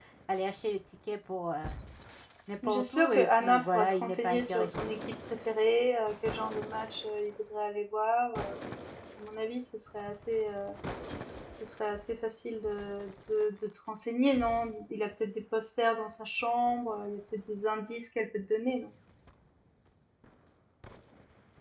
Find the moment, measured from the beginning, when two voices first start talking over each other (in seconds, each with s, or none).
2.6 s